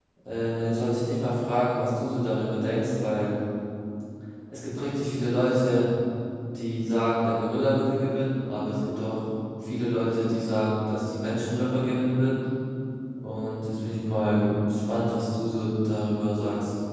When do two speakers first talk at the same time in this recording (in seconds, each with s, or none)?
none